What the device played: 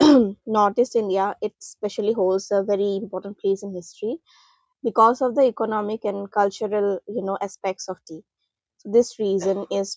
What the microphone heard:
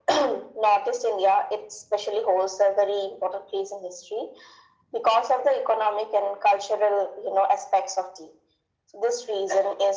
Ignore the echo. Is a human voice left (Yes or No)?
No